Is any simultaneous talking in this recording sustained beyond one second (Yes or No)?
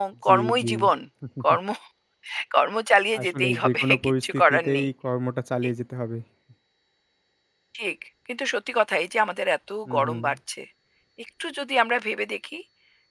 Yes